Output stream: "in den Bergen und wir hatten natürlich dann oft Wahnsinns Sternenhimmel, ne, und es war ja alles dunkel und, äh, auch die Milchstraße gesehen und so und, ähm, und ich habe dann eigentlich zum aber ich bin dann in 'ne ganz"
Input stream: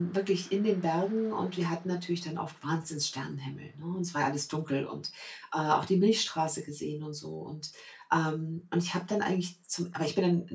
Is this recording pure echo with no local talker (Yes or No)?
Yes